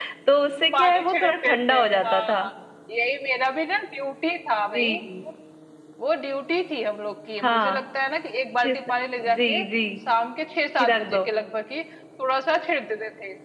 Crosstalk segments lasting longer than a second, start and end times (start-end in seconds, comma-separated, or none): 0.7-2.4